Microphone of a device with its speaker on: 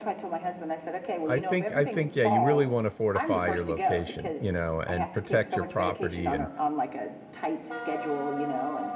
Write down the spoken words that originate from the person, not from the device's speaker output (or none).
I think, I think, yeah, you really want to fortify your location, you know, and protect your property, and